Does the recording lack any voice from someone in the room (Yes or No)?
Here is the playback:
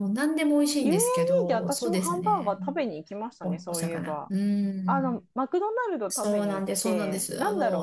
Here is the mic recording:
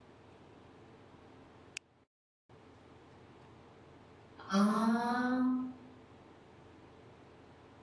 No